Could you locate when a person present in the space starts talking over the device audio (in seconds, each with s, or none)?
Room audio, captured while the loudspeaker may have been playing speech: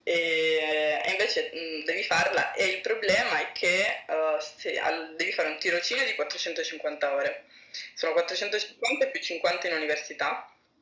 none